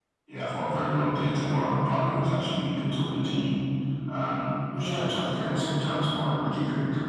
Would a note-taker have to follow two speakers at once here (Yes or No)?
Yes